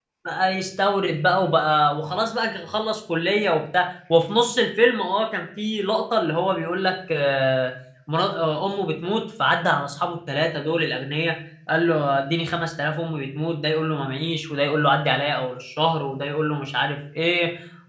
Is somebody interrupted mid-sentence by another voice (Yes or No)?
No